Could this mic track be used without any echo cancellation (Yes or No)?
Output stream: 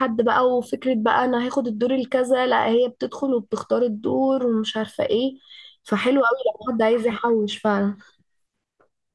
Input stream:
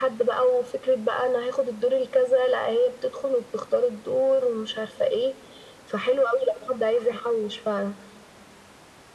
No